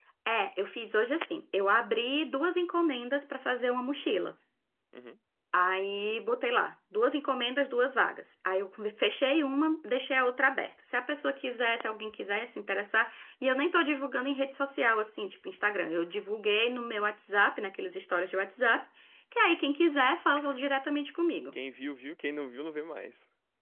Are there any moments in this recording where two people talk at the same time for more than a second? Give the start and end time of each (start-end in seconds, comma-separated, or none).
none